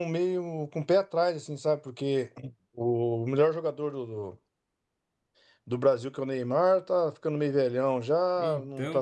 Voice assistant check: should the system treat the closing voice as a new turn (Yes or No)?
No